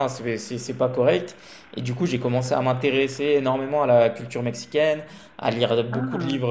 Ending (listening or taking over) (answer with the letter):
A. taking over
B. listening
B